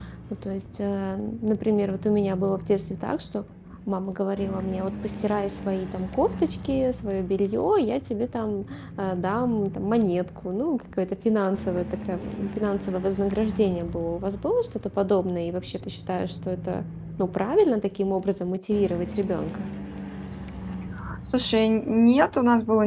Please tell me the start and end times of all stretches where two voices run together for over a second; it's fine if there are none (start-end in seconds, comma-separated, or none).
none